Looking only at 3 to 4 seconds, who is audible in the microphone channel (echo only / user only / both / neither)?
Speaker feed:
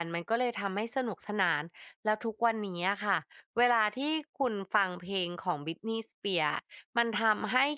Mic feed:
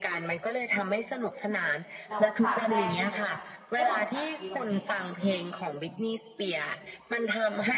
both